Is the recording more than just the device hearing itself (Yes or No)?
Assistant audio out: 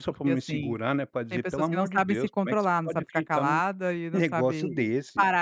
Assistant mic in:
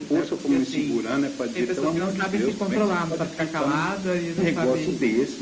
No